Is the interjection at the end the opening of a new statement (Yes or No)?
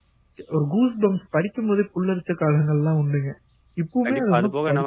Yes